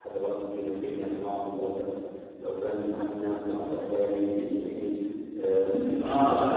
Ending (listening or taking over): taking over